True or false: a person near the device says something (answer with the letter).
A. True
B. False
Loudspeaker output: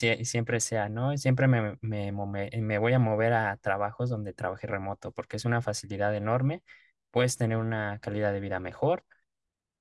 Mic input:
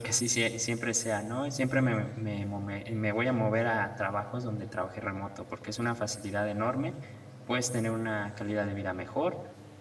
B